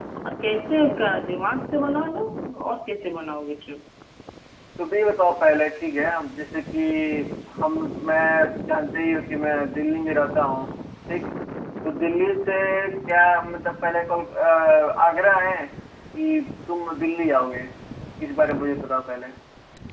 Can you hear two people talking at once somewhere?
No

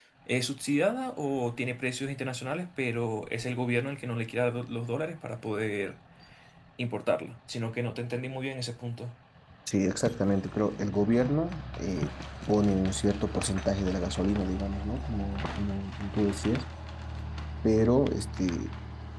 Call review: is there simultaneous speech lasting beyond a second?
No

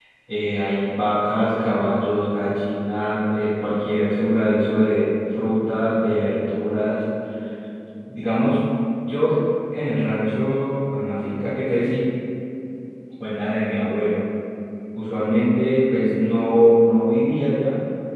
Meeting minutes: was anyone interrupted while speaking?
No

